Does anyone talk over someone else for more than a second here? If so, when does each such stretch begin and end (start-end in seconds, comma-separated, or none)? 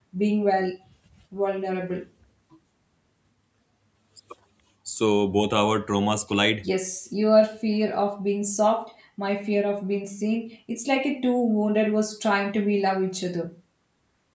none